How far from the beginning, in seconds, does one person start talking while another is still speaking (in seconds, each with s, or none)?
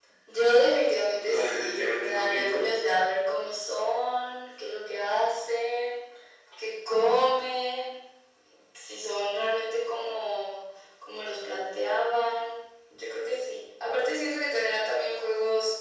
1.1 s